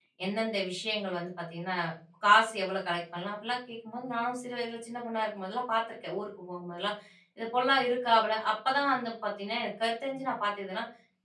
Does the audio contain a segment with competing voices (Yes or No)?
No